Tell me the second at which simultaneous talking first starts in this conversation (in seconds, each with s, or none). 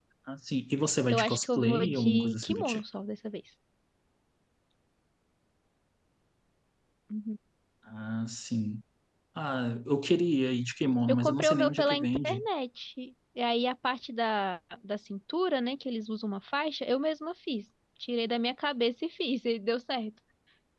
1.1 s